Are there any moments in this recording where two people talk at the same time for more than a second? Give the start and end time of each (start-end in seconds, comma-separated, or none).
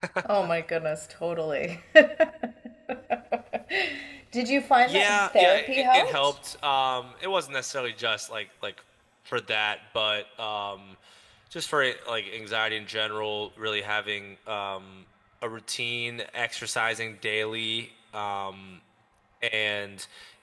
4.9-6.3